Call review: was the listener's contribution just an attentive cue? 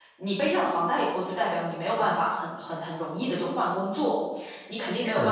Yes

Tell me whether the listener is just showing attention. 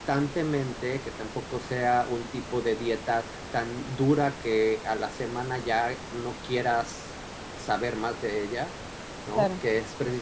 Yes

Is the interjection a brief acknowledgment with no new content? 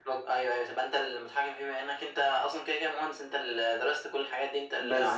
No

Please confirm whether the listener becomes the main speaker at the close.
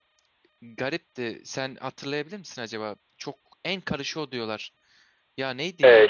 Yes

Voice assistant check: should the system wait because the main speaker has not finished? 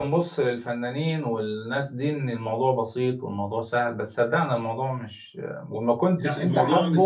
No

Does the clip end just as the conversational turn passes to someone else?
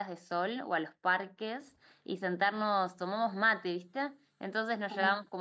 No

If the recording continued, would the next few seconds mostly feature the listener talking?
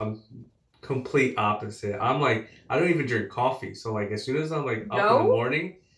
No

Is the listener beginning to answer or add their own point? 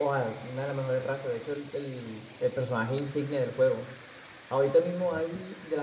No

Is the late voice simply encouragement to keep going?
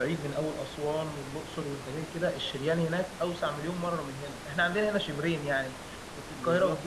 Yes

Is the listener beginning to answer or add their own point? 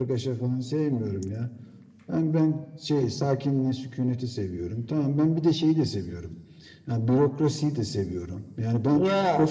No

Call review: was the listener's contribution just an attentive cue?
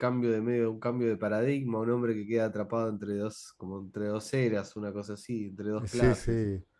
No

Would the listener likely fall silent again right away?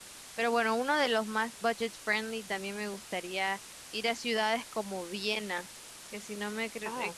Yes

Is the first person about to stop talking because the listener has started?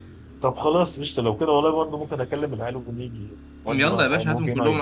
Yes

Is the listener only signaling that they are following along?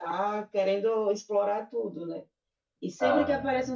Yes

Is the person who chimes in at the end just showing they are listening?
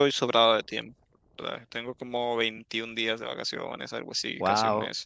Yes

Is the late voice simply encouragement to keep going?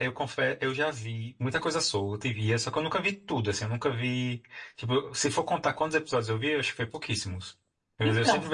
Yes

